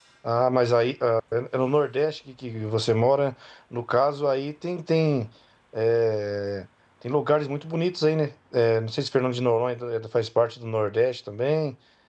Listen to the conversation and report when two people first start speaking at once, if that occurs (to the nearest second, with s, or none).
none